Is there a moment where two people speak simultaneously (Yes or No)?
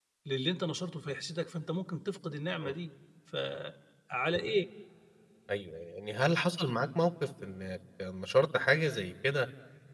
No